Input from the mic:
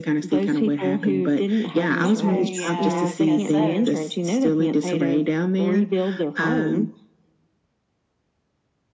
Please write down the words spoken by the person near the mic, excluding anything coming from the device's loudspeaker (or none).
Okay. Yeah. I guess so.